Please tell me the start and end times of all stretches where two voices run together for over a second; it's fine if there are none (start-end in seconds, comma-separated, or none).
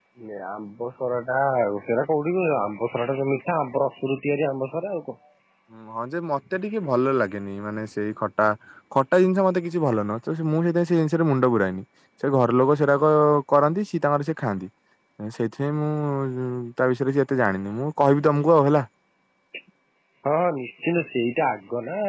none